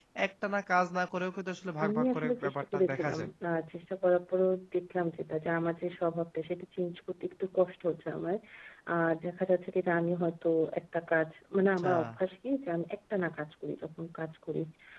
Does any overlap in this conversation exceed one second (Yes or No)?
Yes